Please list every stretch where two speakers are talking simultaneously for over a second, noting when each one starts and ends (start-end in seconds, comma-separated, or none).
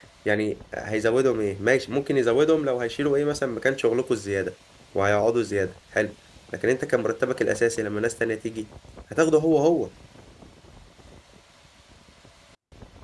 none